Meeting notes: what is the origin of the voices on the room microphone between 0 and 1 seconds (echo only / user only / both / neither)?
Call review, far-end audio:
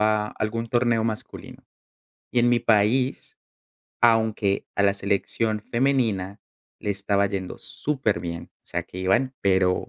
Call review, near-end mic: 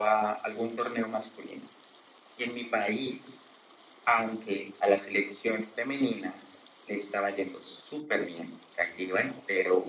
echo only